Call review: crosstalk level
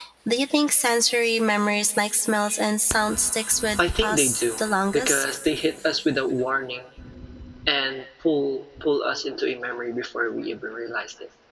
present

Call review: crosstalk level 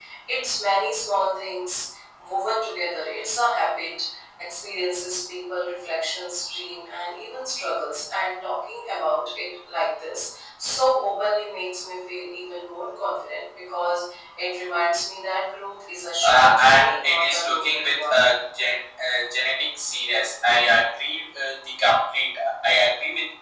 present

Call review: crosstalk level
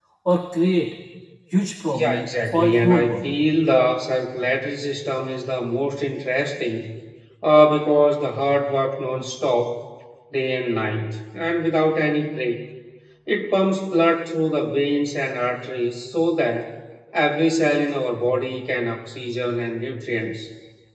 present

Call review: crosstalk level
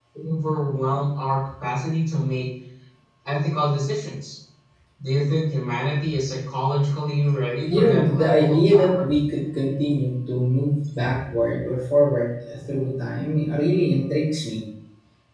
present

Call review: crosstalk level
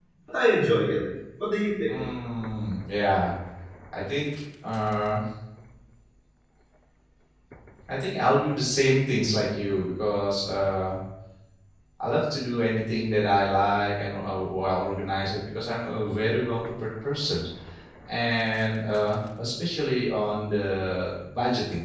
none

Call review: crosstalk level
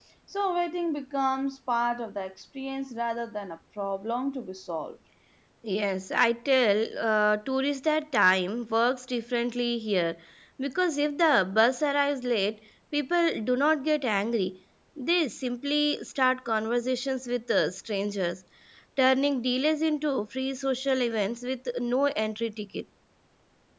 none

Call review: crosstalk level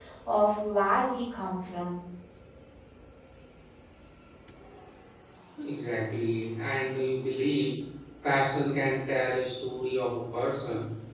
none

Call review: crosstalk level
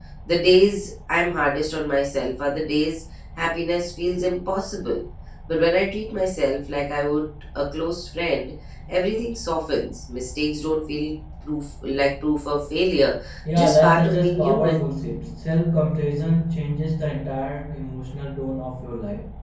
present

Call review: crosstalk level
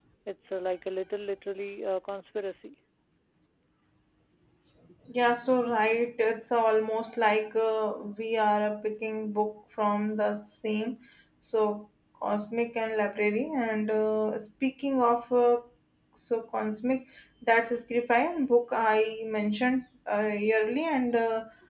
none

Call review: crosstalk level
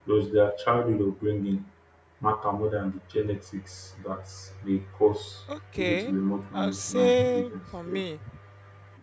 present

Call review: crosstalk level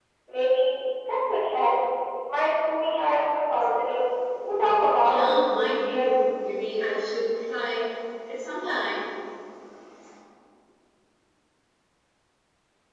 present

